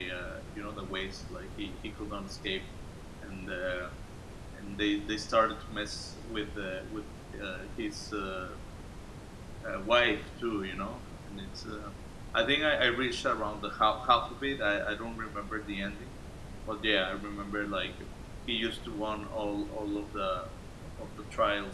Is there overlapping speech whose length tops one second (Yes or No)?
No